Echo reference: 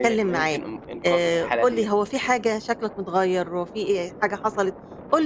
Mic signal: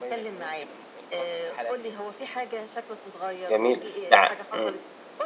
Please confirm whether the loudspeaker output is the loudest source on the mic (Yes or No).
No